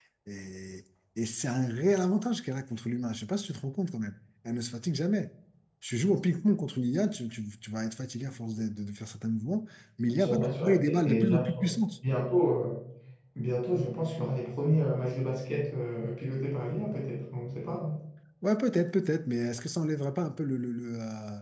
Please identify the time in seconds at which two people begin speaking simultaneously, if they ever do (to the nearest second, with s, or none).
10 s